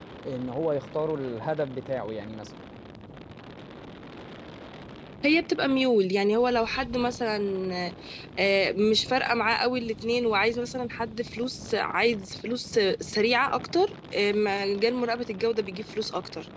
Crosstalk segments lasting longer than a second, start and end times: none

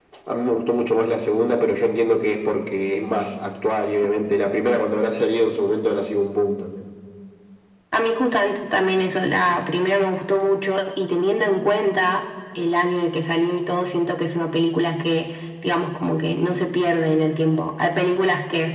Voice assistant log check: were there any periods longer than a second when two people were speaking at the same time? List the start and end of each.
none

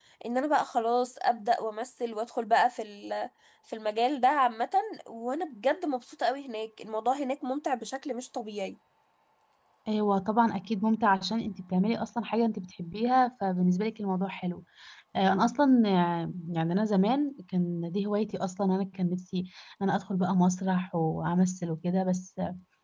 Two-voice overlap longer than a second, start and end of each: none

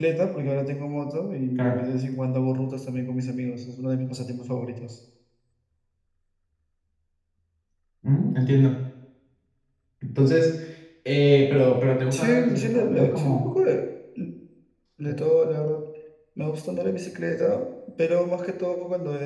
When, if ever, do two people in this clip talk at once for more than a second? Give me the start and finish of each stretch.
12.1-13.5

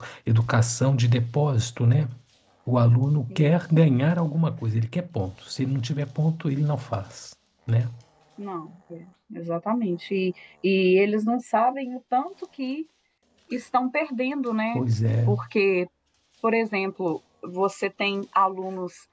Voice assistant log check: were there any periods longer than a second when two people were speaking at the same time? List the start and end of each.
none

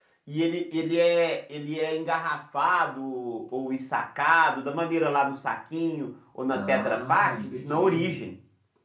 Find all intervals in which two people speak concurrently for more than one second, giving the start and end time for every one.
6.5-8.1

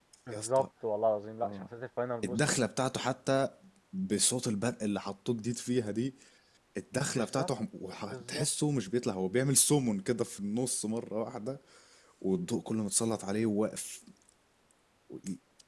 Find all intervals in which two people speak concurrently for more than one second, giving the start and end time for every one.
none

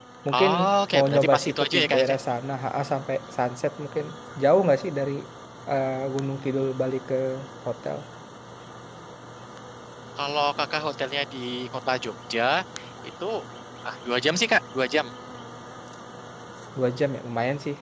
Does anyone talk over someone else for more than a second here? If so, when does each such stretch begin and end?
0.9-2.2

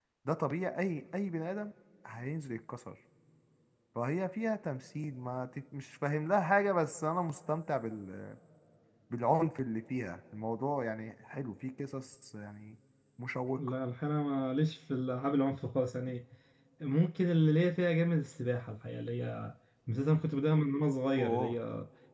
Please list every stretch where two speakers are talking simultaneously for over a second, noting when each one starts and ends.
none

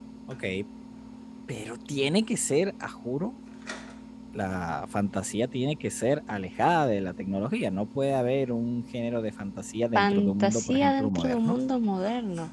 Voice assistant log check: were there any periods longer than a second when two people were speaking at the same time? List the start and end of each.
9.9-11.6

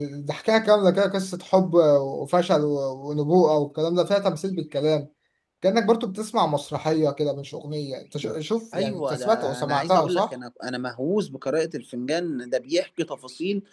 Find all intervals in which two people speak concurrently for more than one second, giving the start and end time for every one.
8.7-10.3

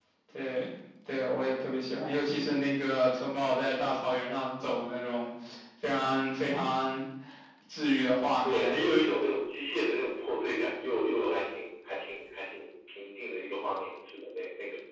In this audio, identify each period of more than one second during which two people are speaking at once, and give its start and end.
none

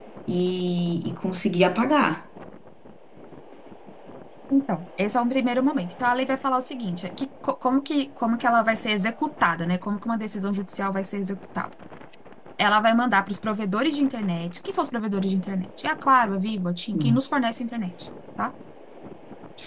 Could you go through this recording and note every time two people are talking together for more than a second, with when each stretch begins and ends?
none

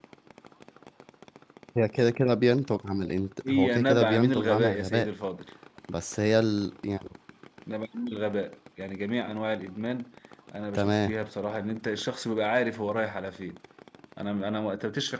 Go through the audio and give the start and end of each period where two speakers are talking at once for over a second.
3.5-5.1

